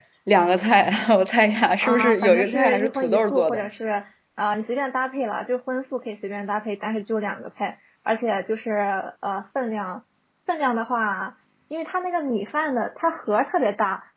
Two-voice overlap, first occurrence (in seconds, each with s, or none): 1.8 s